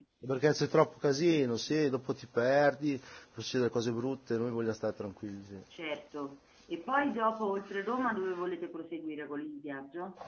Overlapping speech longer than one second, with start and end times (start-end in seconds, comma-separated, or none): none